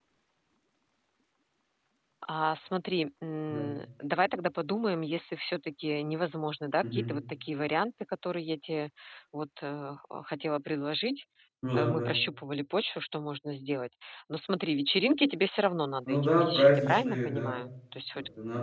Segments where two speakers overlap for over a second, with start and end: 16.1-17.6

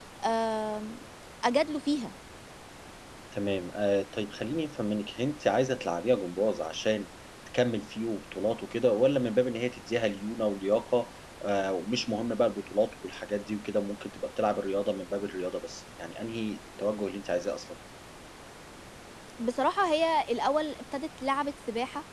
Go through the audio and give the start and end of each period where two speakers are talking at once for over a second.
none

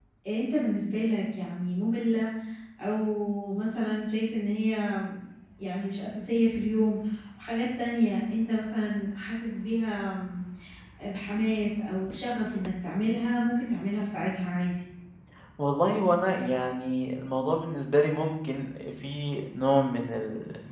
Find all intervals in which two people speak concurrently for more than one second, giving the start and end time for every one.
none

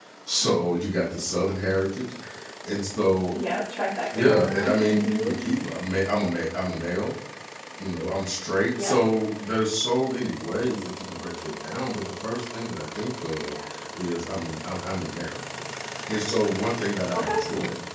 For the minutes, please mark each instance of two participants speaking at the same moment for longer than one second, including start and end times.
4.1-5.3

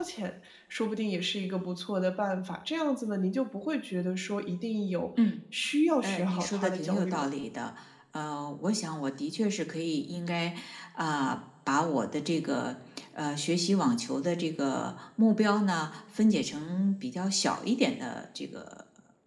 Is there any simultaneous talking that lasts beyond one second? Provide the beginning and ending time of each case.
6.0-7.3

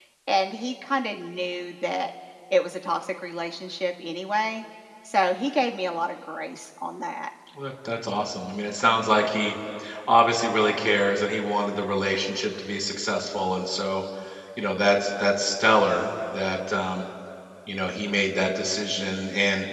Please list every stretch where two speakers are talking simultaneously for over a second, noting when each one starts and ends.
none

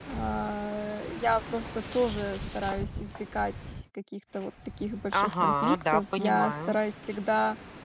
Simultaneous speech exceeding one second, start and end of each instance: 5.2-6.8

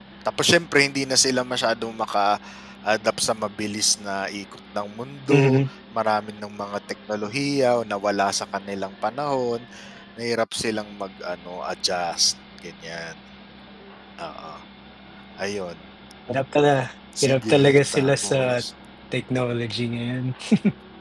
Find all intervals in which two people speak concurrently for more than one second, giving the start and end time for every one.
17.2-18.6

